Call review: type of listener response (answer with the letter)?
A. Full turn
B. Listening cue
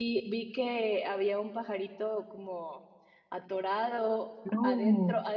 B